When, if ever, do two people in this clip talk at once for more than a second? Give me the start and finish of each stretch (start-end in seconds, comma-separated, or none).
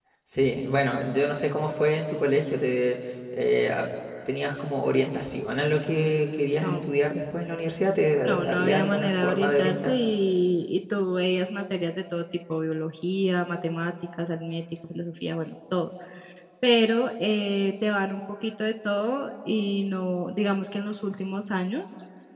8.2-10.1